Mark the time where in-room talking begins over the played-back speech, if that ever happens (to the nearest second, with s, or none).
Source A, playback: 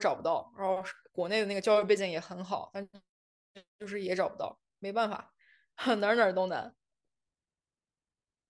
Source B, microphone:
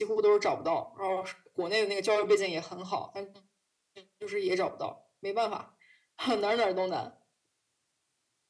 none